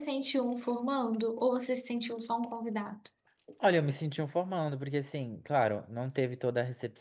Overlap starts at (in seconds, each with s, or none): none